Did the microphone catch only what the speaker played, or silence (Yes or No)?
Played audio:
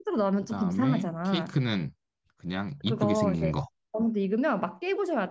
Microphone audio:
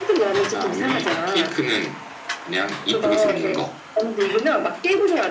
Yes